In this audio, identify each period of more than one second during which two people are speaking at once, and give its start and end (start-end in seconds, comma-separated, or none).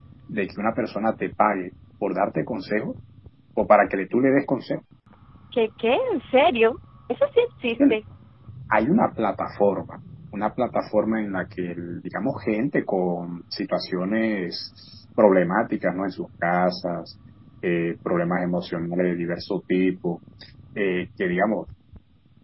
none